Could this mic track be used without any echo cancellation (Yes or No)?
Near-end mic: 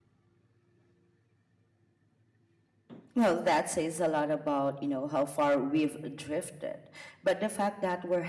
Yes